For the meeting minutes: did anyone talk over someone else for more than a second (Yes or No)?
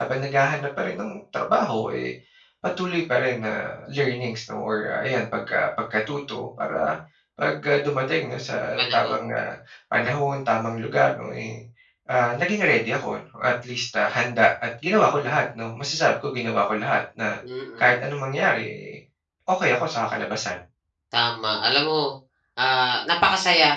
No